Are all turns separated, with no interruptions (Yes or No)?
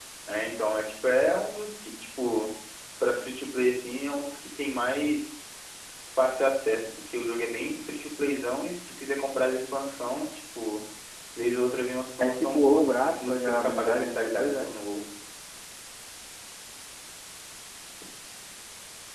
No